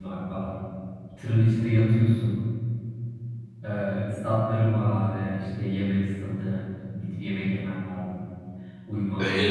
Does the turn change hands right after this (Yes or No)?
Yes